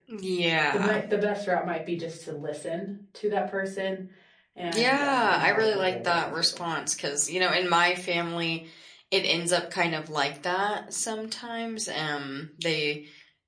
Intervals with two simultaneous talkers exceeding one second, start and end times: 4.7-6.5

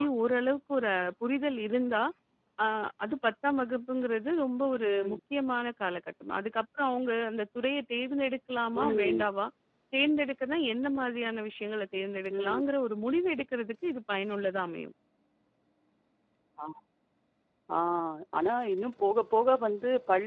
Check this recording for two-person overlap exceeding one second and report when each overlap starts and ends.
none

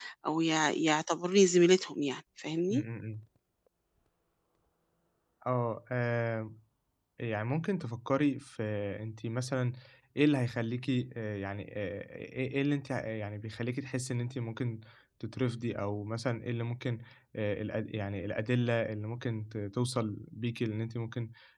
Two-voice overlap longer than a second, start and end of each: none

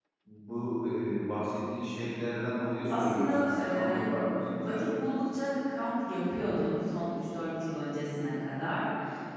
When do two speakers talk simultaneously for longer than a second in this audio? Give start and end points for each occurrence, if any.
2.9-4.1

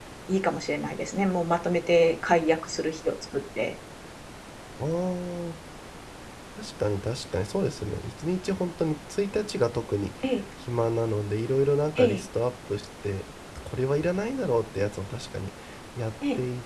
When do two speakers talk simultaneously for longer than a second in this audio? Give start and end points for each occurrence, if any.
none

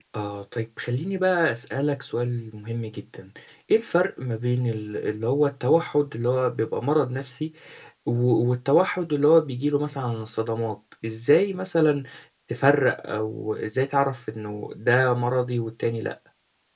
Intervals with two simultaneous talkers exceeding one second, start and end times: none

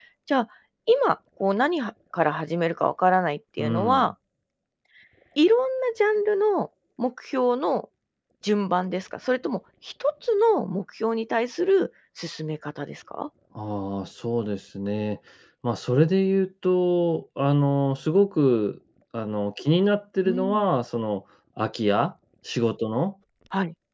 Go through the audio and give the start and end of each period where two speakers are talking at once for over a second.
none

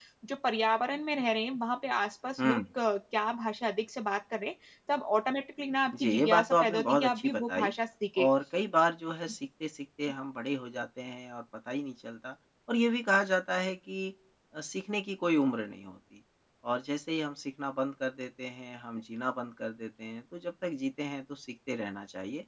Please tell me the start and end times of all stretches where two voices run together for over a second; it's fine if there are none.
6.0-7.7

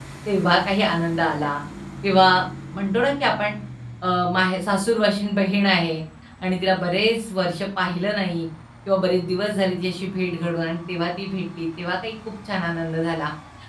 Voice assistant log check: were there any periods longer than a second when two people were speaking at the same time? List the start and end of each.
none

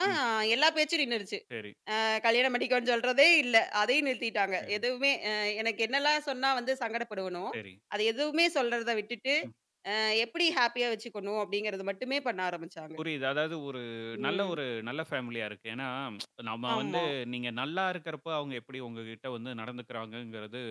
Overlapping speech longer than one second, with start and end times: none

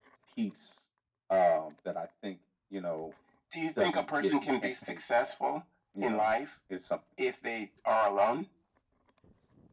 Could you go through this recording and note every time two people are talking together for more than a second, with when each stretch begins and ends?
3.8-5.3

